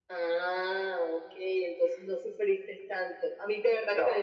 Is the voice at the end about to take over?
No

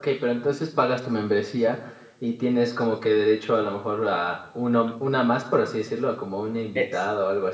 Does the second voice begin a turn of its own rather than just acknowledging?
Yes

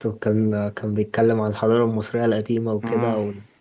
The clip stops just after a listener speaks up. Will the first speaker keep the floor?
Yes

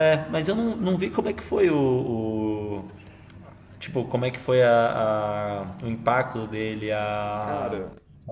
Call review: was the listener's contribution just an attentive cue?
Yes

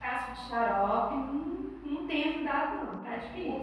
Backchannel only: No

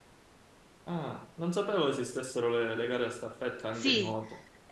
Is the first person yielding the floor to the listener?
Yes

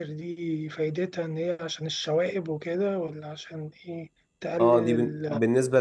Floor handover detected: Yes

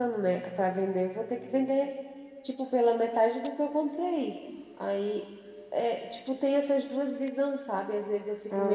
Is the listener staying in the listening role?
Yes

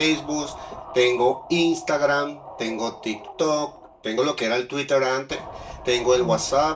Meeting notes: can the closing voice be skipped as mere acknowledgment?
Yes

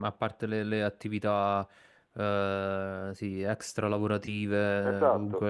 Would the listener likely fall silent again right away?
Yes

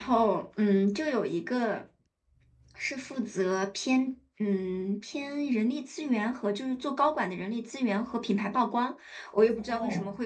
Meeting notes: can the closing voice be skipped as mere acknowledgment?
Yes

